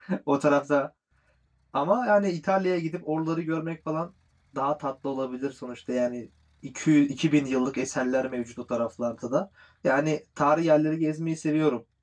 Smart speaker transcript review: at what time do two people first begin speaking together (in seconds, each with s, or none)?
none